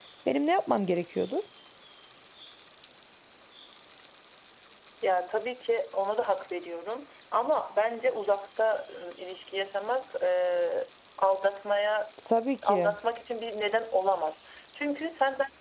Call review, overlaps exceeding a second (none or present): none